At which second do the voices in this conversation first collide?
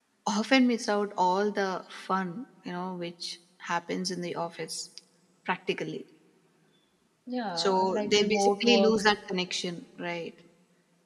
7.6 s

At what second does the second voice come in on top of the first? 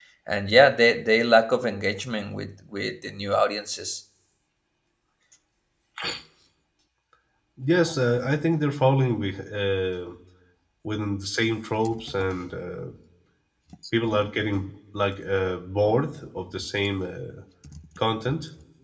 none

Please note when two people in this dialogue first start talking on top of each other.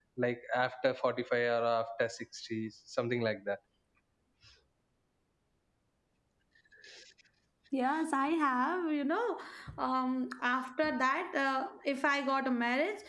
none

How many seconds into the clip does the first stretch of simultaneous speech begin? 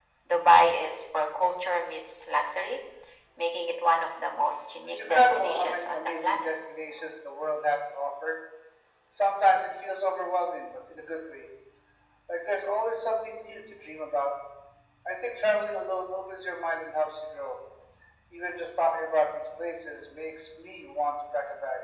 4.8 s

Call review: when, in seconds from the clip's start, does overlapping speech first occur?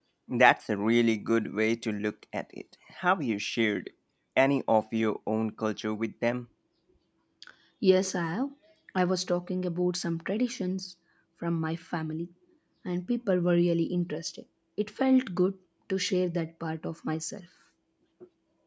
none

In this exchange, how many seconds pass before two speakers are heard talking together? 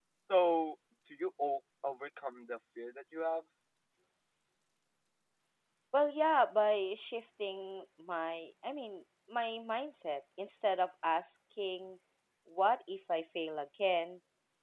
none

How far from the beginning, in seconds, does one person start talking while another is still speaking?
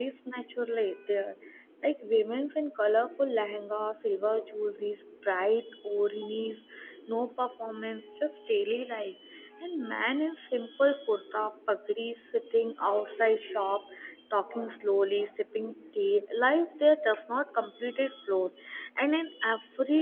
none

